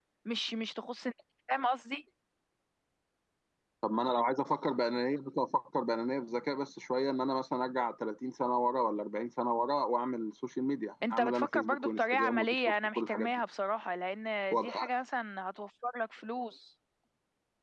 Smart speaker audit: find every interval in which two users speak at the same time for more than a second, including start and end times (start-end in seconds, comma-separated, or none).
11.1-13.3